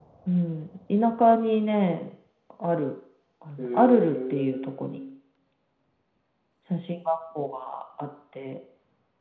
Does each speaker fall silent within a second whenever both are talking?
No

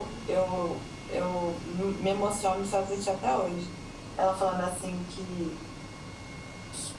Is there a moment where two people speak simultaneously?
No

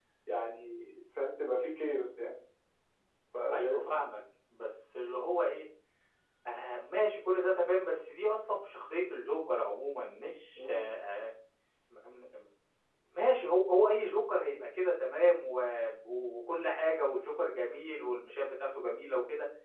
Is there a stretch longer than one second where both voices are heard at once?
No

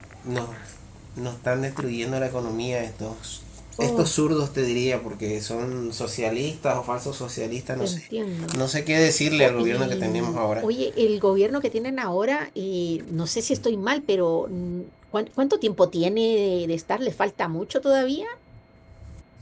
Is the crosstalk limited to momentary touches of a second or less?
No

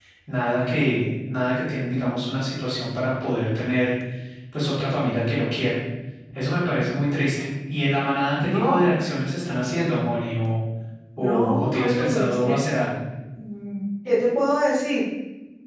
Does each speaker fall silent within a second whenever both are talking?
No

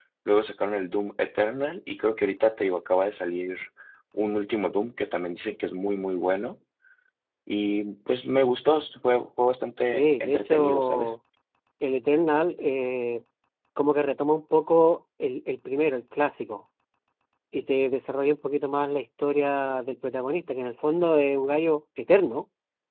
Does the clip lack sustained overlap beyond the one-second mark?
No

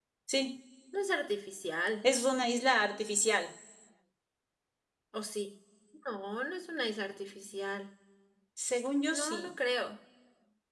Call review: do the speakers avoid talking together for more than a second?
Yes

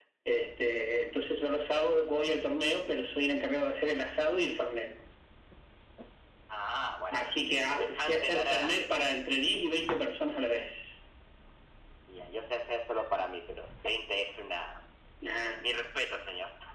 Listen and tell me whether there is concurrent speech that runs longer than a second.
Yes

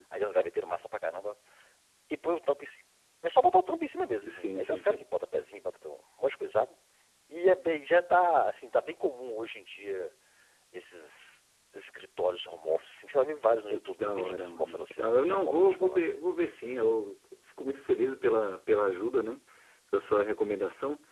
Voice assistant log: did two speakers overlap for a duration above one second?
Yes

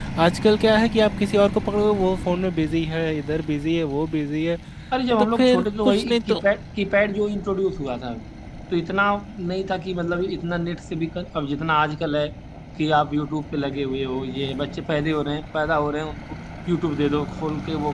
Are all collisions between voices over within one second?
No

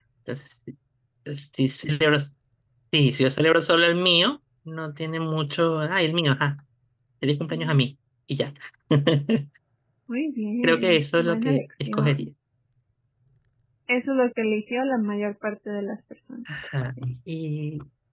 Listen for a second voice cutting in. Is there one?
Yes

